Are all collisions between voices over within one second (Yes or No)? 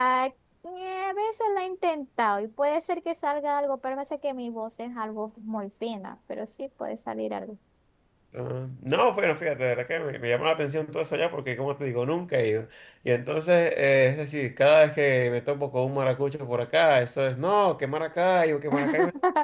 Yes